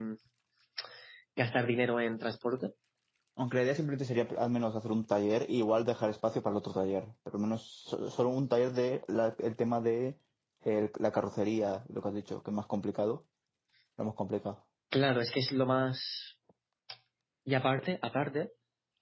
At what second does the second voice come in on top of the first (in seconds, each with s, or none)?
none